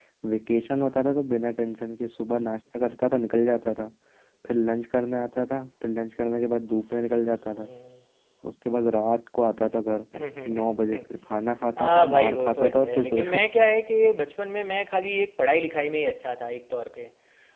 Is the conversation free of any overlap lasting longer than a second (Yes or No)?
No